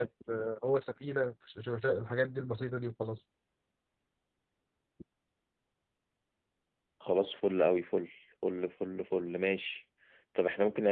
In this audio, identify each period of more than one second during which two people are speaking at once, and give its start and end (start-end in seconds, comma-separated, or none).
none